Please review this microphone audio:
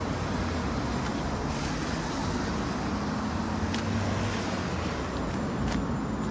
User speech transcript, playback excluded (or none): none